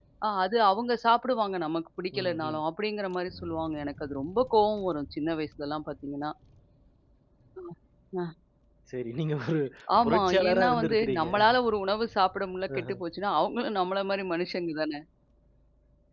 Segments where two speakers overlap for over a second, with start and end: 10.0-11.3

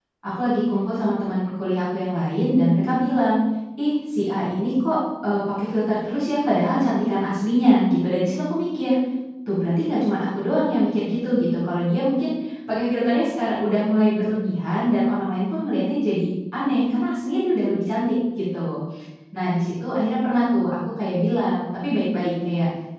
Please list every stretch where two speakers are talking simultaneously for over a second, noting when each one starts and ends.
none

